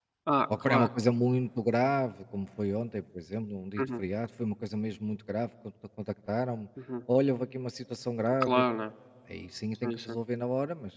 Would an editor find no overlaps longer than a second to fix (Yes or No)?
Yes